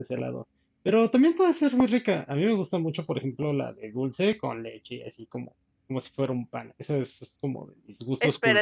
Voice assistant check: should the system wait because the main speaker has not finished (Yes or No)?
No